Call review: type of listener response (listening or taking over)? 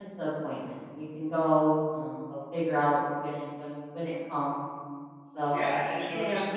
taking over